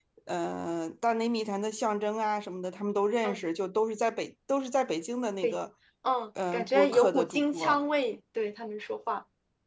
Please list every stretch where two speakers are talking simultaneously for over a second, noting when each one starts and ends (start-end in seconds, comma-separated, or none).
6.5-7.8